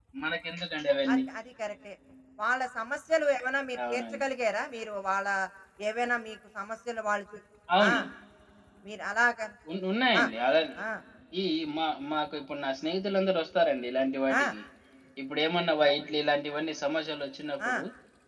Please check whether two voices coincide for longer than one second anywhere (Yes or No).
No